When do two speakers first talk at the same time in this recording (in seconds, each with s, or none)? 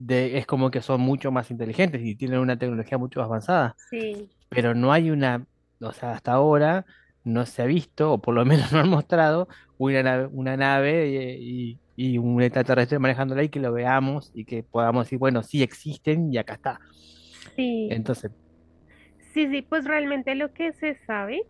none